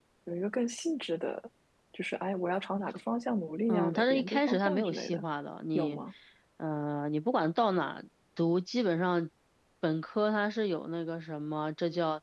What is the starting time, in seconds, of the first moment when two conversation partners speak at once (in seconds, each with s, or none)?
3.7 s